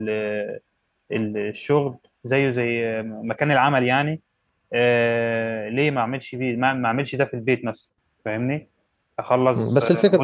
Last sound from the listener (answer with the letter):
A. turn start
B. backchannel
A